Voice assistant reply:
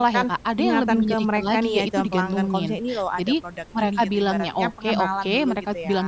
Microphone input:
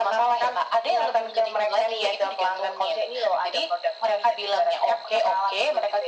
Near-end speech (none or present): none